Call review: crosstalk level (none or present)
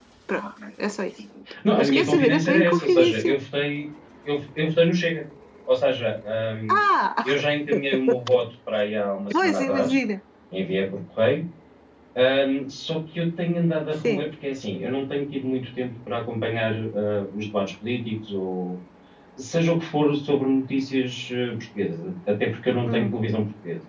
present